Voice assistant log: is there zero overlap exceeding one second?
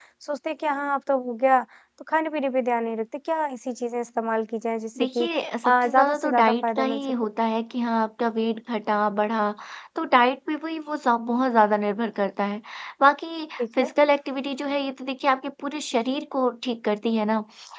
No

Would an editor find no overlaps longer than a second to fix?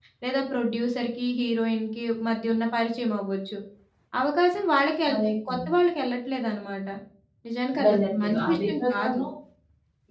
No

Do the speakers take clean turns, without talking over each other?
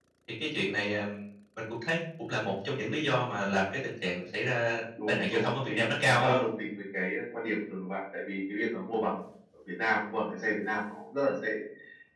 No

